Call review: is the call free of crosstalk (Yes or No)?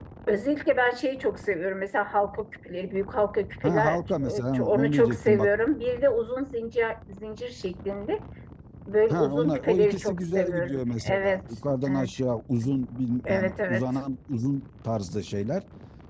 No